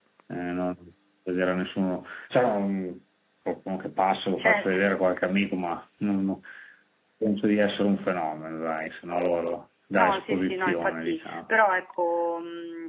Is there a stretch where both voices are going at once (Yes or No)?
Yes